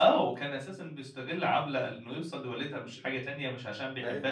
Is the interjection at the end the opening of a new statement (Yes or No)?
No